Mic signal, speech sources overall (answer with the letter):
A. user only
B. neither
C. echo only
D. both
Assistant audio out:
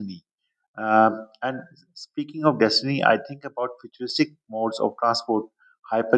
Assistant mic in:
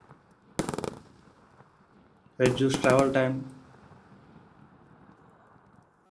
A